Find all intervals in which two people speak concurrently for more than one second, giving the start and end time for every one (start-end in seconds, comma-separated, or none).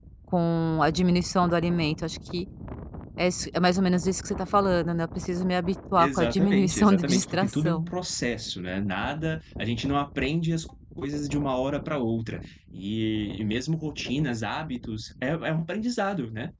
6.0-7.9